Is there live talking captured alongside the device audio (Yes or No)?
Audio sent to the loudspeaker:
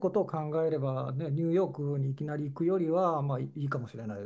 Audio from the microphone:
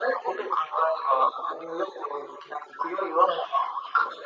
No